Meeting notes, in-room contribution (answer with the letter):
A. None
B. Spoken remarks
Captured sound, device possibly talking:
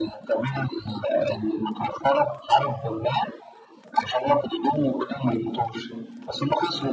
A